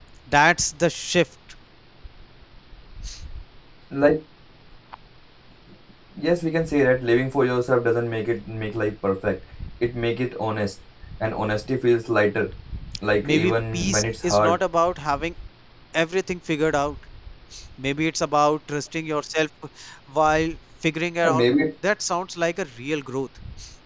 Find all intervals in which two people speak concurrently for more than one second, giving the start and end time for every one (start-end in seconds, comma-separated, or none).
13.2-14.6